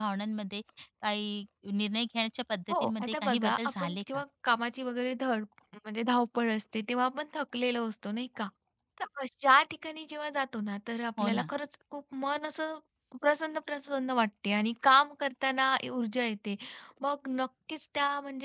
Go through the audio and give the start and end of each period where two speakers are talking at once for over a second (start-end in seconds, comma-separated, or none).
2.7-4.2